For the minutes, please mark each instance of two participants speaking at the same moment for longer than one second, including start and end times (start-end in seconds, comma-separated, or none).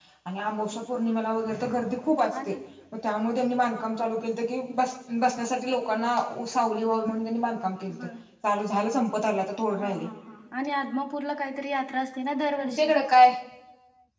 none